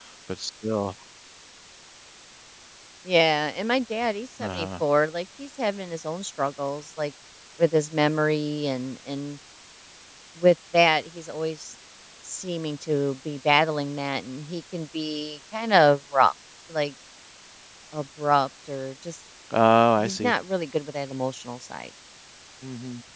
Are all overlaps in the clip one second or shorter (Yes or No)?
Yes